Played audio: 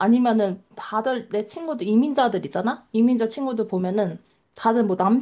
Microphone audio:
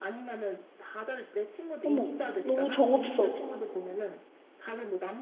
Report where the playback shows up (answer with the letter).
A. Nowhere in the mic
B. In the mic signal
B